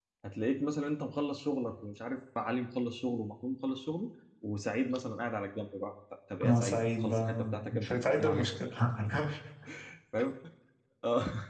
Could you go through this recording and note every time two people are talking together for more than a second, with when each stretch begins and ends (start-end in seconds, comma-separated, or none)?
6.4-8.5